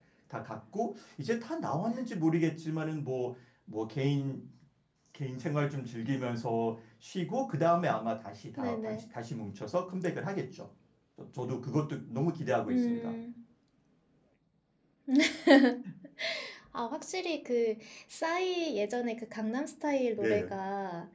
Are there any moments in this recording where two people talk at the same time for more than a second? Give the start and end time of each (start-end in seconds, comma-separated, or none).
none